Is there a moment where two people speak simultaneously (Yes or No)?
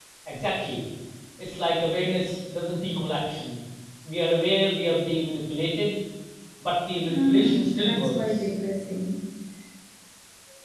Yes